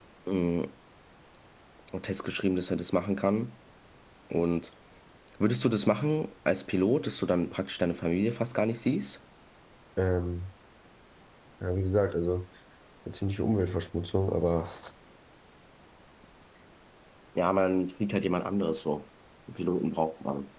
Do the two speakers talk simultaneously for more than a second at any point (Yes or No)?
No